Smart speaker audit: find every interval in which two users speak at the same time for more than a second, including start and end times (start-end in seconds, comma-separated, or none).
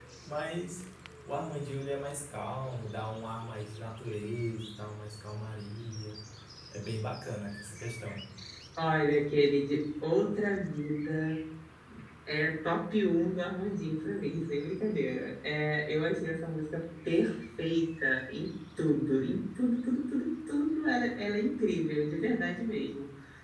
none